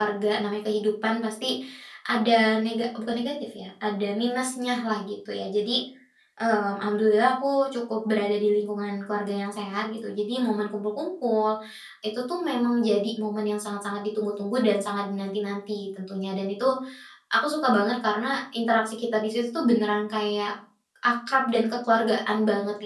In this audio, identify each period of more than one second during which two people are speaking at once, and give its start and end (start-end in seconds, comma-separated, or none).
none